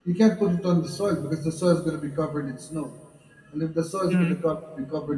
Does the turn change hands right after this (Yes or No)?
No